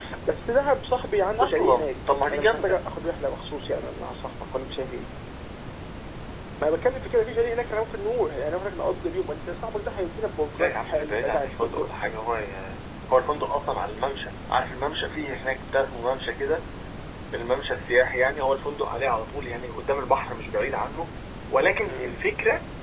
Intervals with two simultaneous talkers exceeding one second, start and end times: 1.4-2.9, 10.5-11.9

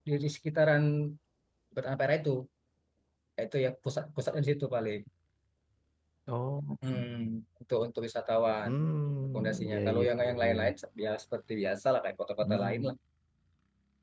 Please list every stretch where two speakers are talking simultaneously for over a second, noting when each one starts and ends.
9.3-10.6

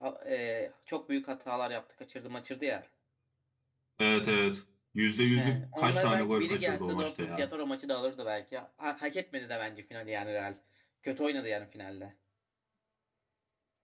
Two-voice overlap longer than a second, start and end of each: 5.3-7.5

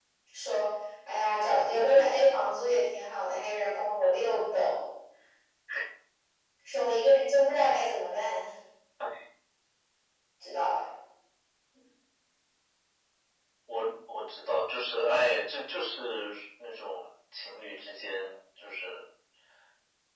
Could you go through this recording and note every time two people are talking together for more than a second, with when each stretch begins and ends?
none

